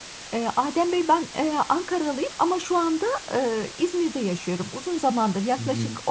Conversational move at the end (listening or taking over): listening